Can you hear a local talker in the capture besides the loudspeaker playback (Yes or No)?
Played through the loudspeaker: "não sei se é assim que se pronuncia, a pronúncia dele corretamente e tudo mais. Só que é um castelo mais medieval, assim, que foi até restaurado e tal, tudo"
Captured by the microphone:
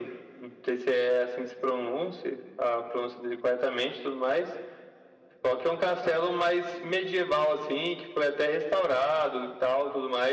No